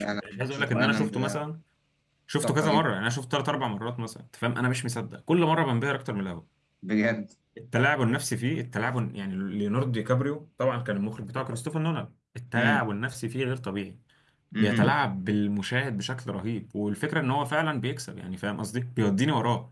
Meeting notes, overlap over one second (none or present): present